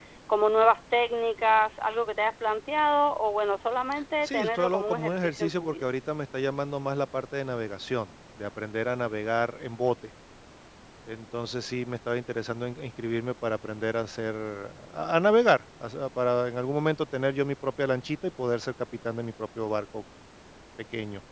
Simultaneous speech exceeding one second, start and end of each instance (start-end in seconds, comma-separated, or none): 4.2-5.8